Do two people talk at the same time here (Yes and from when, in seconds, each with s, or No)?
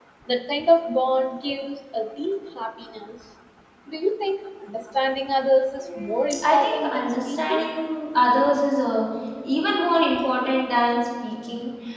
Yes, from 5.8 s